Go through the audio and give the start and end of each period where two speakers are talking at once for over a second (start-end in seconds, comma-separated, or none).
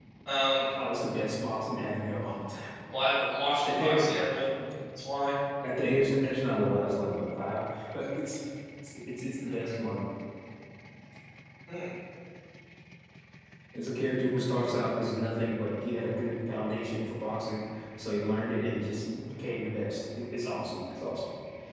none